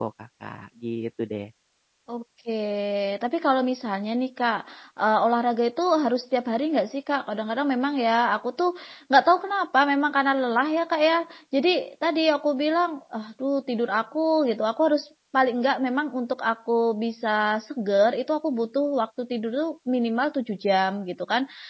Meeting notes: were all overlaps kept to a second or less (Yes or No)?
Yes